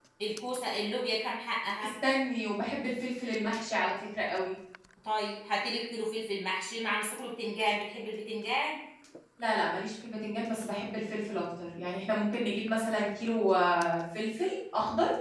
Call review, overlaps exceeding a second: none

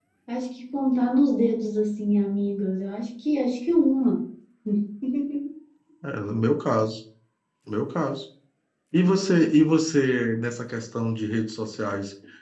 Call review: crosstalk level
none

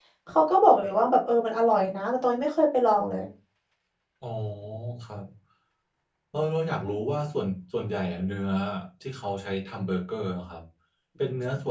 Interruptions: none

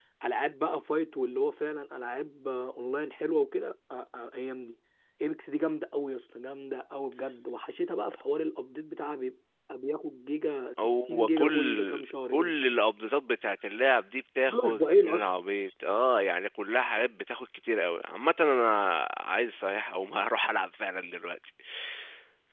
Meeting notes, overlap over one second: present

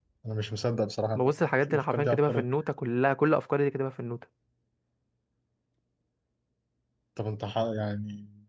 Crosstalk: present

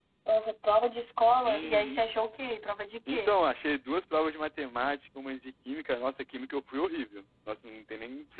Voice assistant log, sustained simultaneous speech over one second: none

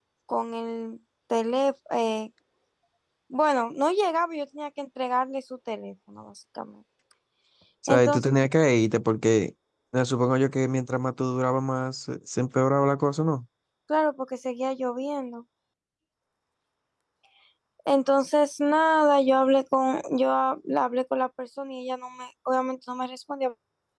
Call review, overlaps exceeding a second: none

